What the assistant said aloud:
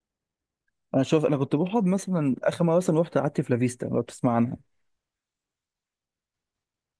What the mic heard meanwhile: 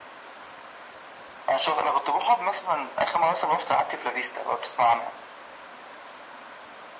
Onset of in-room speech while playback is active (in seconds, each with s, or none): none